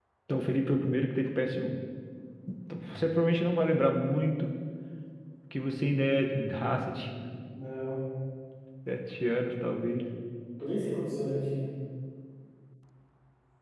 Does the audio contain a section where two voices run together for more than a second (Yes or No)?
No